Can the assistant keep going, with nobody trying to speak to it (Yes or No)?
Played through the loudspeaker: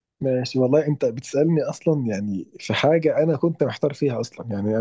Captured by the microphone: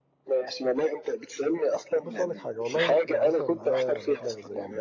No